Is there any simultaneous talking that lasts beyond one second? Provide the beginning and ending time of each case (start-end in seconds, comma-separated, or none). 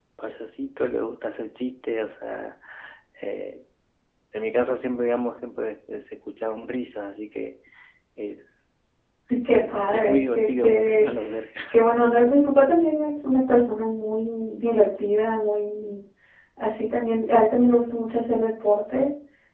9.5-11.1